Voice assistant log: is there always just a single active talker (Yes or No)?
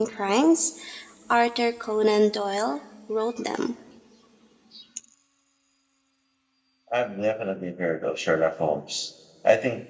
Yes